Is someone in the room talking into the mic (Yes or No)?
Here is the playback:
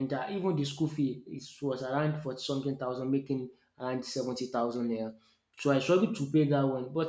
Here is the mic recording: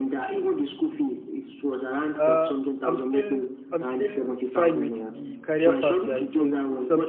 Yes